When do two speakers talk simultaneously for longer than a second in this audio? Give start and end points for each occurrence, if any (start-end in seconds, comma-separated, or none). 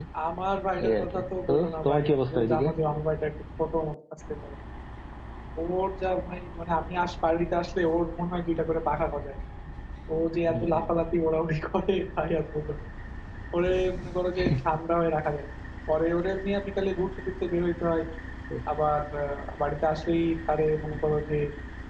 0.8-2.7